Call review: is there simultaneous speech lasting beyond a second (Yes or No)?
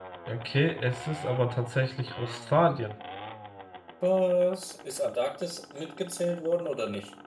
No